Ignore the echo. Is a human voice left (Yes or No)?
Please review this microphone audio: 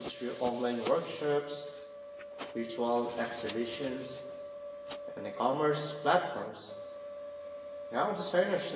Yes